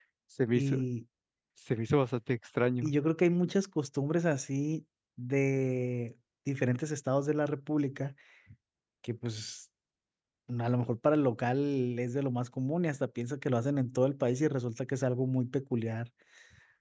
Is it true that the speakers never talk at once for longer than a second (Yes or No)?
Yes